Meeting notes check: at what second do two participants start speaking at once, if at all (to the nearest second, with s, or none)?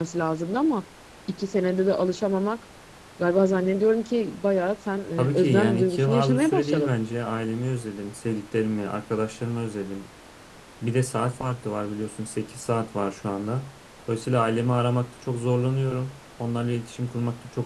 5 s